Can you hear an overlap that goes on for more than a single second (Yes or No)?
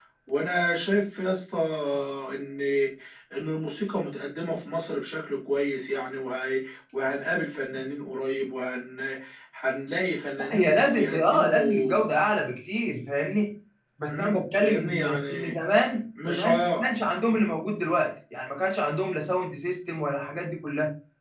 Yes